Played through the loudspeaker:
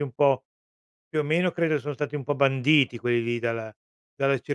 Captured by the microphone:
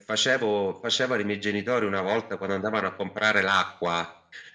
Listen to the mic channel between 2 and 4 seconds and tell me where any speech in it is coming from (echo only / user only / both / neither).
user only